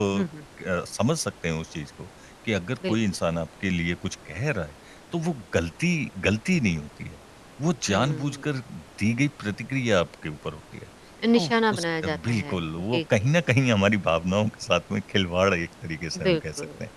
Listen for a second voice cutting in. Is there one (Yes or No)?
Yes